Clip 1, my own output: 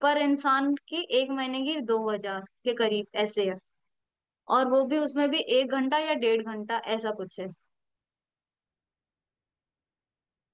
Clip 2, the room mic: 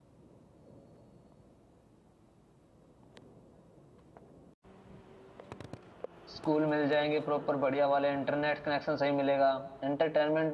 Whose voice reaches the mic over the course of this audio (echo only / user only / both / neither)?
user only